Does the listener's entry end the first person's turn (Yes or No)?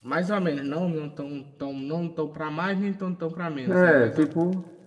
Yes